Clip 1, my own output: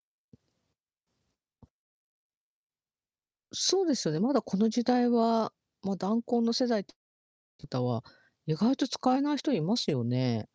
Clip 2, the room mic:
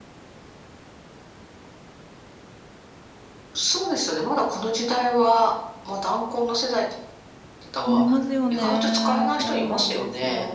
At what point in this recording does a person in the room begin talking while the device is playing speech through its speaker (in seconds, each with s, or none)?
7.8 s